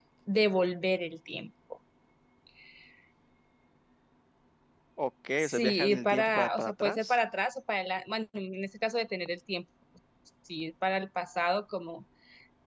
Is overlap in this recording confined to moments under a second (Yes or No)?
No